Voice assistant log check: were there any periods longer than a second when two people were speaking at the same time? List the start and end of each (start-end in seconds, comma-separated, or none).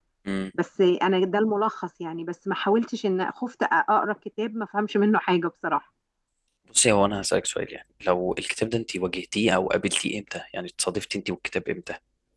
none